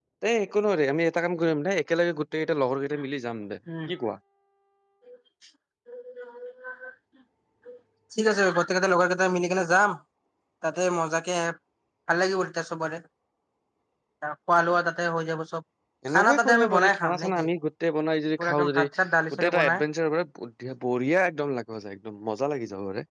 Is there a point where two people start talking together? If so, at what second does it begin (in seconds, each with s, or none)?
16.2 s